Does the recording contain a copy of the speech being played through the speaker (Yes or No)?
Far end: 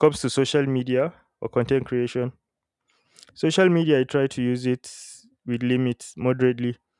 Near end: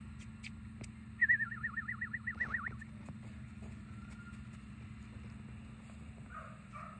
No